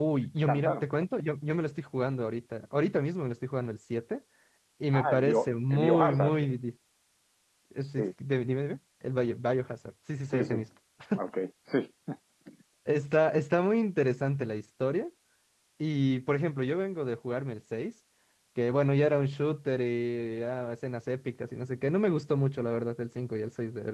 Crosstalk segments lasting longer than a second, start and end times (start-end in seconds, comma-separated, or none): 5.0-6.4